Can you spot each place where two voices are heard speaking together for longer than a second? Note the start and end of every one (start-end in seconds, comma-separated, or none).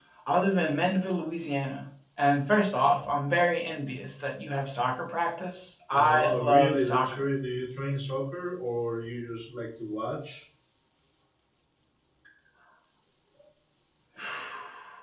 5.9-7.2